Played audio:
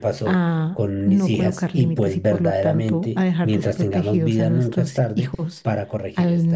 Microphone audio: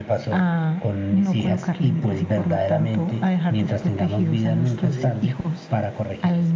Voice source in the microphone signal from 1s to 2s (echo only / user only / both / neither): echo only